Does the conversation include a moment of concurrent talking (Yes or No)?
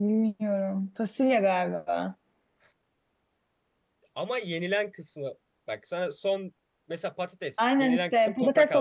Yes